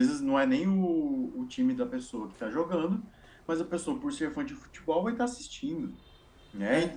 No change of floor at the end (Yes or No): Yes